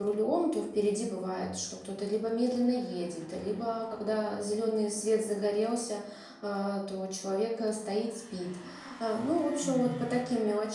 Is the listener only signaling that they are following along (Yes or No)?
Yes